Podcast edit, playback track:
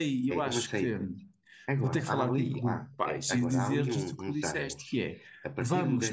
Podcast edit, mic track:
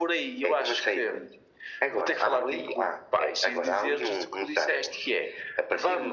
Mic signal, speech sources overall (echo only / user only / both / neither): echo only